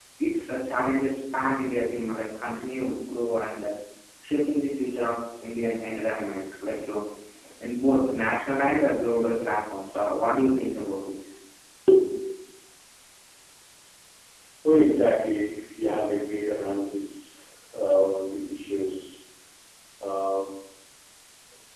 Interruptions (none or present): none